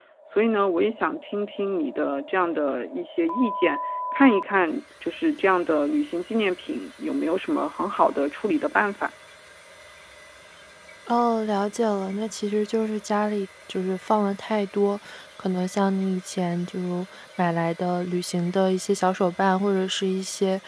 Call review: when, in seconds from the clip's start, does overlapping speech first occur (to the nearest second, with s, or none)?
none